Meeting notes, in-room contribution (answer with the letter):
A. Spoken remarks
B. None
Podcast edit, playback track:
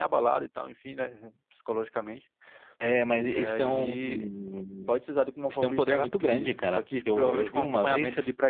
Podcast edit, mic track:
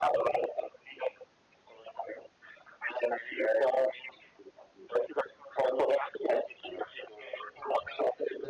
B